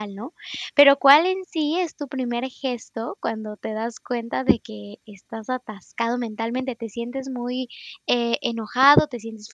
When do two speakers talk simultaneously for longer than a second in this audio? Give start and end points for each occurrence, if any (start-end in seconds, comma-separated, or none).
none